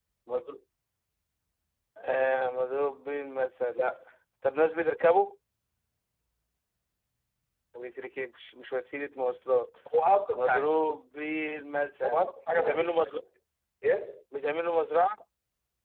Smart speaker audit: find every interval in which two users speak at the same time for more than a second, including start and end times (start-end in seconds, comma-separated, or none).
12.0-13.2